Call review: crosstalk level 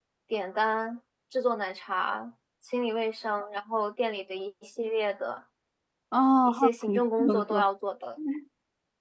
present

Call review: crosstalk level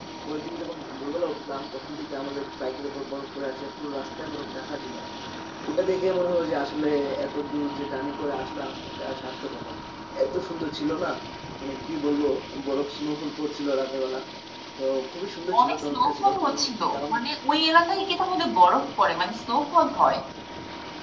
present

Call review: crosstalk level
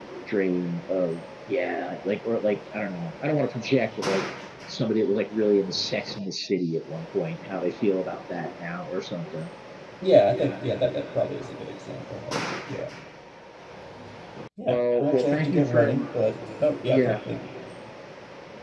present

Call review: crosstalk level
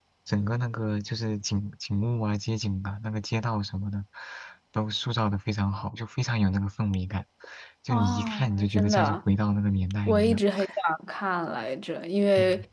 present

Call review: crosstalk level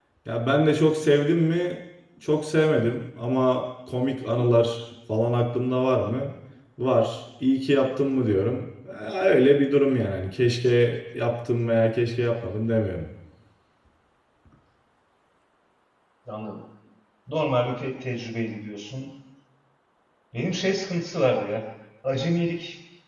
none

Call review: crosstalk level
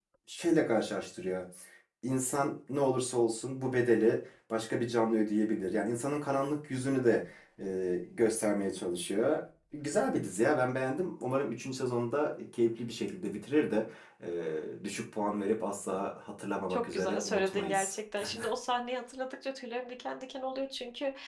present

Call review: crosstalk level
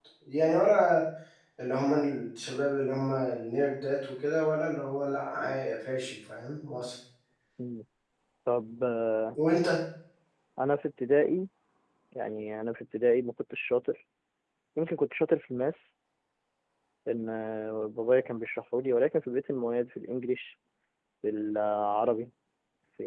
none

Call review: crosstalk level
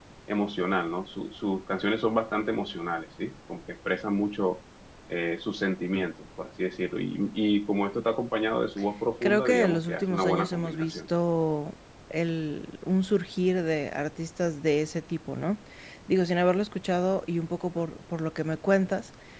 present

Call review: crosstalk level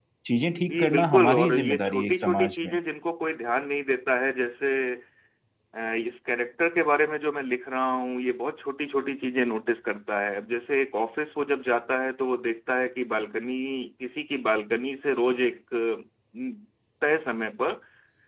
present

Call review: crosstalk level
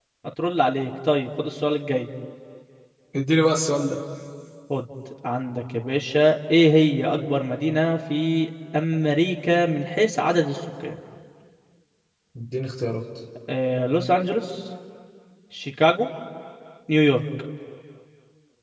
none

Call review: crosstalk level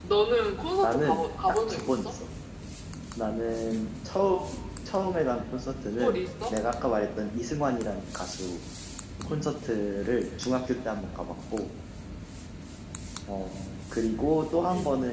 present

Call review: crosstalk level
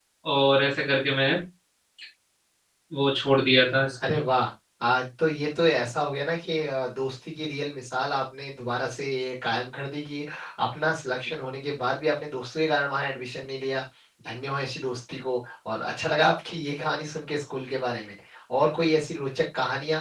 none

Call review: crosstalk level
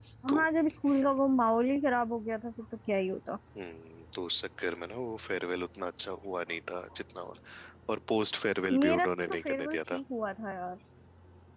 present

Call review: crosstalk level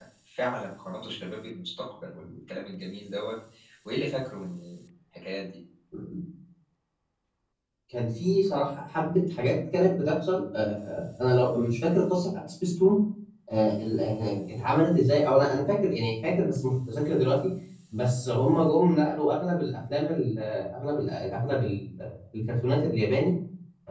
none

